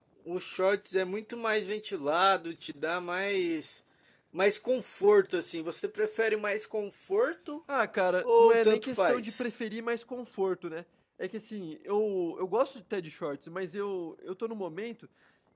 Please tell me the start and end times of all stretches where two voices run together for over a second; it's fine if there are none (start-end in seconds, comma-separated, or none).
8.2-9.5